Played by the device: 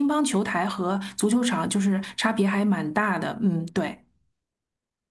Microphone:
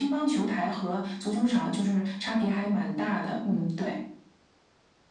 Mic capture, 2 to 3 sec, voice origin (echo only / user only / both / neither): echo only